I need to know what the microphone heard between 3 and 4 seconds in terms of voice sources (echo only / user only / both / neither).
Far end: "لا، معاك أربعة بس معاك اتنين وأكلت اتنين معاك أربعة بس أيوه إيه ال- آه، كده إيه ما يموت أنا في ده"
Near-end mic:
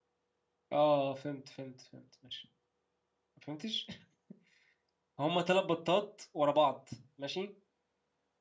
user only